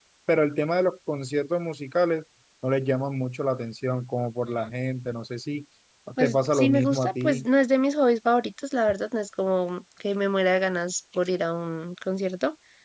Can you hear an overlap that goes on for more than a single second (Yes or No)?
Yes